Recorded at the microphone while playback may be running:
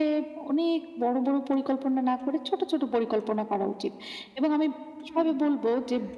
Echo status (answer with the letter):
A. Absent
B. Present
B